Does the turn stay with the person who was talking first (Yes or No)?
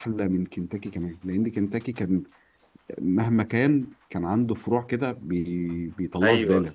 No